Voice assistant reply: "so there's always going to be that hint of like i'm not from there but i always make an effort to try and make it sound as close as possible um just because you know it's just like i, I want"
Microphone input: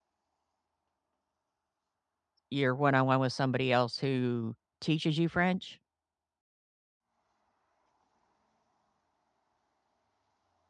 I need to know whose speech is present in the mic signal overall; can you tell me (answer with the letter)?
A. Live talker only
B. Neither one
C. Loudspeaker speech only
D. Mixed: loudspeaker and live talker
A